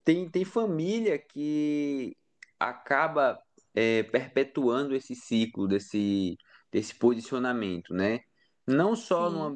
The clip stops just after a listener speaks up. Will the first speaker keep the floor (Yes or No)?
Yes